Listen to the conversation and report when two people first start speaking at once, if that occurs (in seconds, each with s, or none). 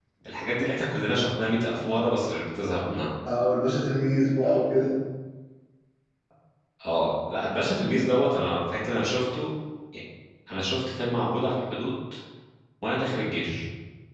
none